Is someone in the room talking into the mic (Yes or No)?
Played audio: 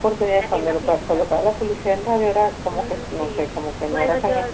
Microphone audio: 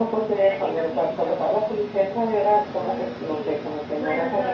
No